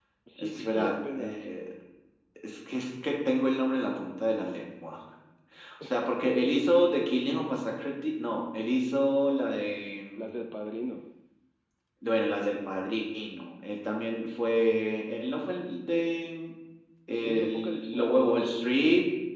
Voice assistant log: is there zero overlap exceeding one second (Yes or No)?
No